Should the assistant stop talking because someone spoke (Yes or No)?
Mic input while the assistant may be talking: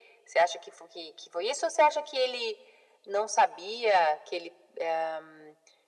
No